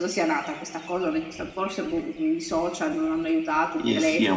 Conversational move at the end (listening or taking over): taking over